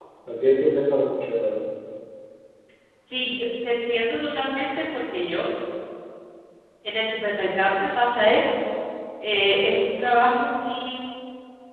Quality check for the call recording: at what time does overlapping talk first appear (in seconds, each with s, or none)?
none